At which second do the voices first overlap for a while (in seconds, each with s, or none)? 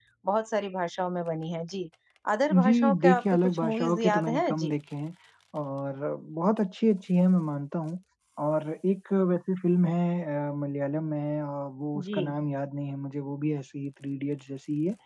2.6 s